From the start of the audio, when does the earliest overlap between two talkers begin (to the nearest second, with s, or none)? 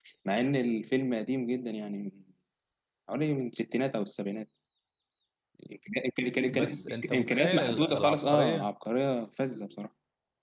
7 s